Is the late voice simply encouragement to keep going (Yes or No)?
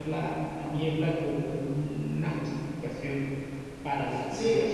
No